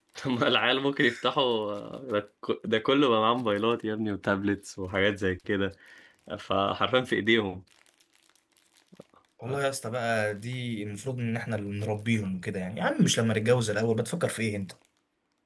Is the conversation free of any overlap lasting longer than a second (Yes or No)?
Yes